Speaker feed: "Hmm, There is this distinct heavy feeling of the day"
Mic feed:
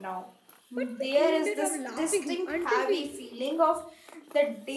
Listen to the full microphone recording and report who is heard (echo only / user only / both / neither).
both